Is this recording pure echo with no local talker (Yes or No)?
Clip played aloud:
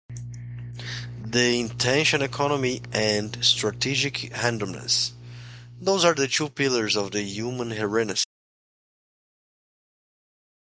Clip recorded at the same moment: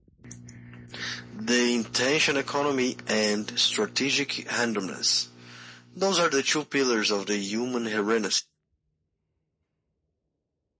Yes